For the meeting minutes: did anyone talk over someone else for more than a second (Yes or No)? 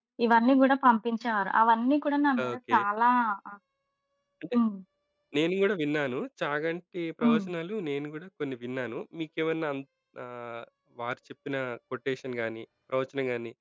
No